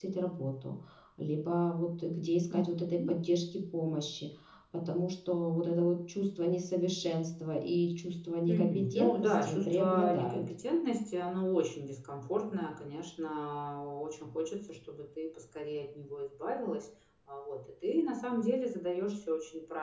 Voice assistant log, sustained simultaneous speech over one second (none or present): present